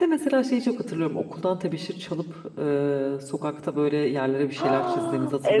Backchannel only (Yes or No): No